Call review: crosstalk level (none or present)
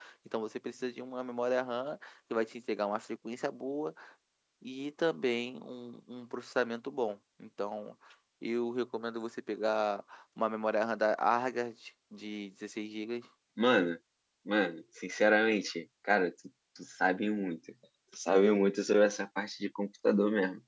none